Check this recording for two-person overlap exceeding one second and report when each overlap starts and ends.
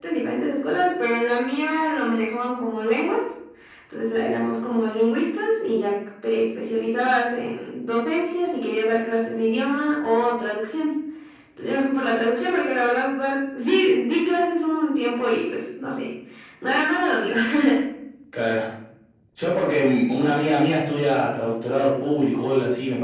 none

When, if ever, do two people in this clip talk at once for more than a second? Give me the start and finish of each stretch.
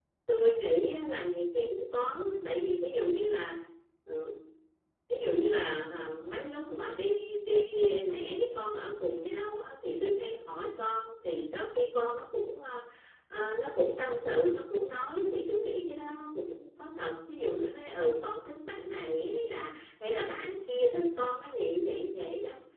none

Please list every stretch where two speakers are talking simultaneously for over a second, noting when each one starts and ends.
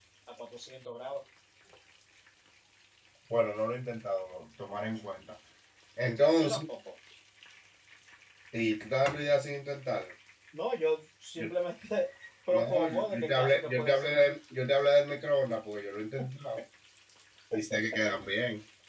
12.5-14.3

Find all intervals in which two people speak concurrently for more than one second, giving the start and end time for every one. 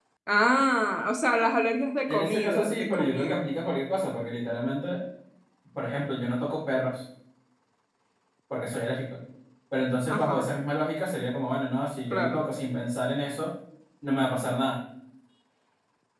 2.1-3.5

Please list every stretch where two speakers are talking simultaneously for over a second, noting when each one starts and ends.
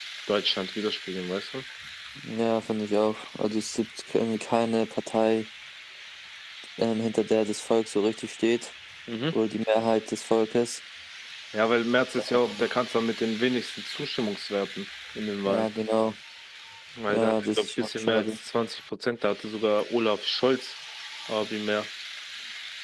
17.1-18.4

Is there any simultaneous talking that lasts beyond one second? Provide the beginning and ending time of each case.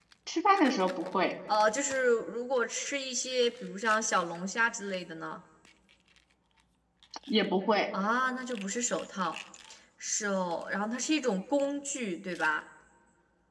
none

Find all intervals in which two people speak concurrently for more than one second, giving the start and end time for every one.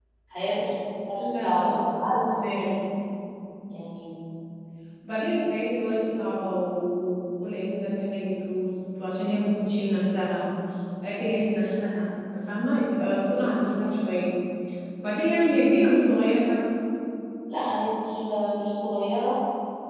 1.1-2.4

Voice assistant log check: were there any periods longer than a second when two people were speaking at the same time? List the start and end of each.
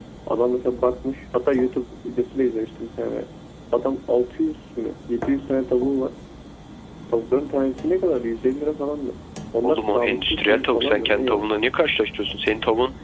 9.6-11.4

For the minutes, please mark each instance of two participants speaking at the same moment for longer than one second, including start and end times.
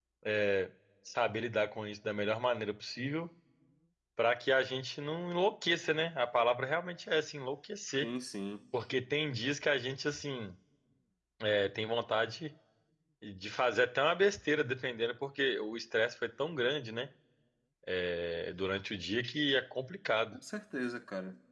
none

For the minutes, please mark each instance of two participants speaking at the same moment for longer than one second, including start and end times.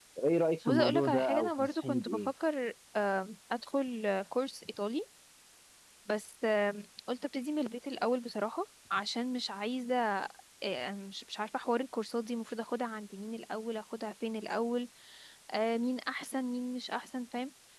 0.7-2.2

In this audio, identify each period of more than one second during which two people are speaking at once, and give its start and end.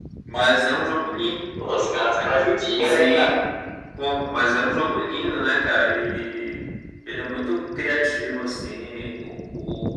none

